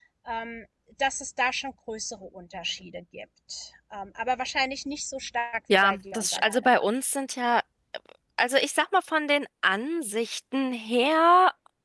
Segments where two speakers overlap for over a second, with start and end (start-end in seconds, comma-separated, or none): 5.7-6.9